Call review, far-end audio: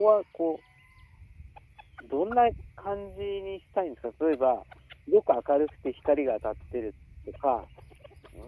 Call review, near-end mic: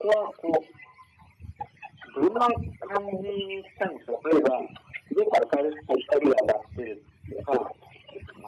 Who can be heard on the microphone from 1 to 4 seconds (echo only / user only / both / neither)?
echo only